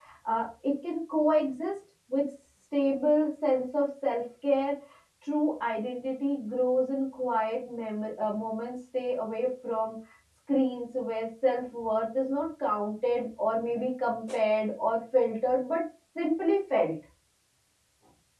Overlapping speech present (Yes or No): No